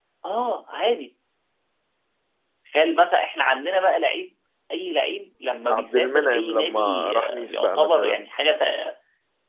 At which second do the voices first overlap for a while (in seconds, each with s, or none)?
5.7 s